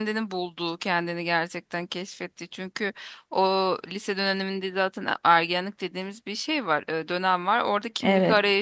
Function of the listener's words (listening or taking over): listening